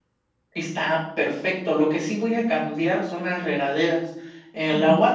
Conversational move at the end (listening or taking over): listening